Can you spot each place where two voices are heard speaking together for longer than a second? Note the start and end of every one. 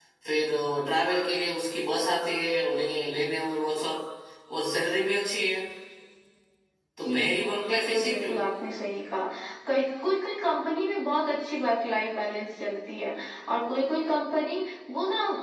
7.0-8.3

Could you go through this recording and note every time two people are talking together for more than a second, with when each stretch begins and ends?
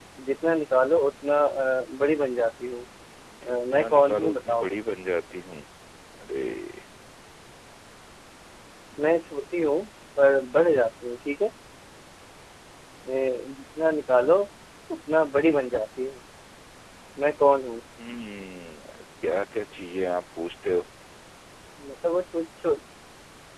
3.4-4.7

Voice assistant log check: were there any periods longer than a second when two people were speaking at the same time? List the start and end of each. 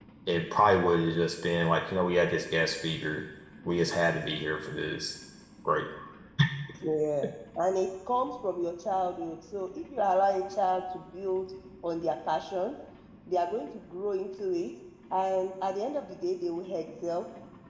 none

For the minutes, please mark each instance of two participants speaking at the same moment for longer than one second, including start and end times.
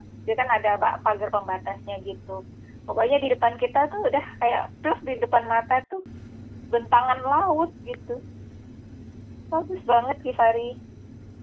none

